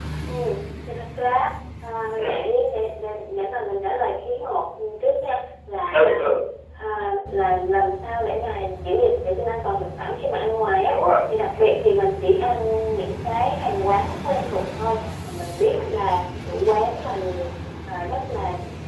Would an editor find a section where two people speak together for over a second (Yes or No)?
No